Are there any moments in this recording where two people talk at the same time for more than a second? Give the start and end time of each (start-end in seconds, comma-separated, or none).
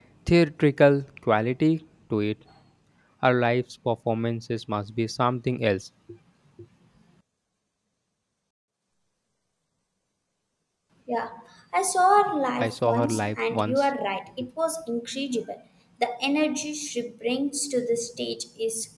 12.6-13.8